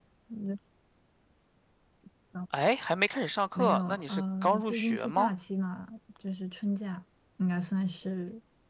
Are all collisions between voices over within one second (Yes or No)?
No